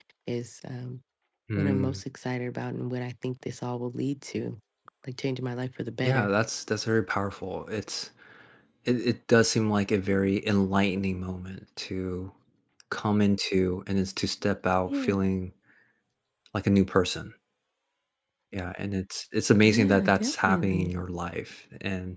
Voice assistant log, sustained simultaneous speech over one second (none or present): present